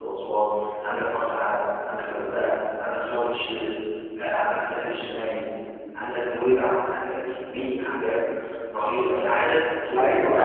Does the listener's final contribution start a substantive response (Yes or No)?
Yes